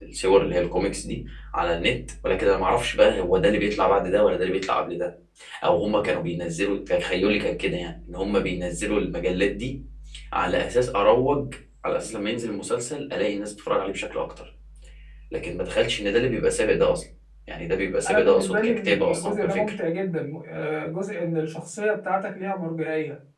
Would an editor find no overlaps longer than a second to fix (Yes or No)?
No